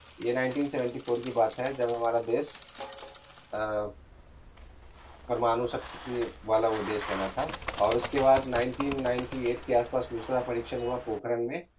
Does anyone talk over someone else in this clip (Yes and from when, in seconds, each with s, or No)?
No